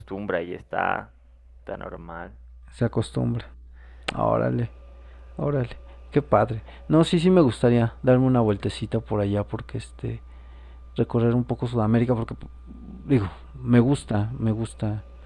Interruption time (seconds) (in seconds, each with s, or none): none